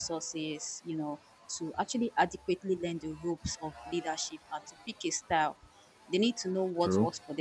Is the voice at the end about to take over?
No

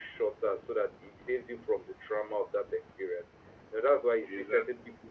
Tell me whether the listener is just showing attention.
Yes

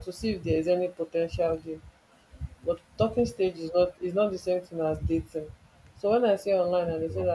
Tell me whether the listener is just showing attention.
Yes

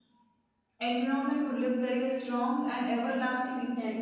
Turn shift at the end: Yes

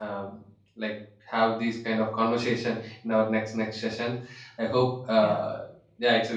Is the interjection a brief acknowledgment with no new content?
Yes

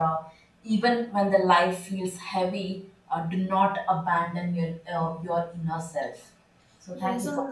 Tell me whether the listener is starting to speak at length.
Yes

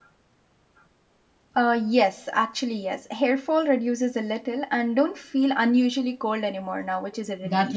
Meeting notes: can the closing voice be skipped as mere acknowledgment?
No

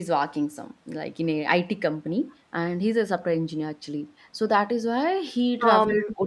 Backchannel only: Yes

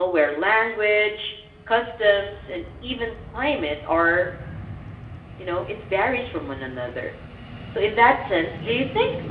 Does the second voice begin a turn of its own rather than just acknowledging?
No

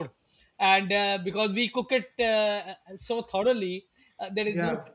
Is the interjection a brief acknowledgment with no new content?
Yes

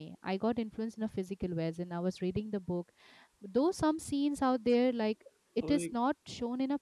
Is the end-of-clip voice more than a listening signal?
No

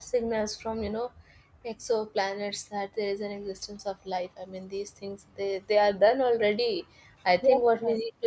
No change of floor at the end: Yes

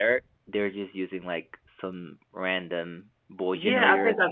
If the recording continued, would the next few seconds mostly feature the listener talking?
Yes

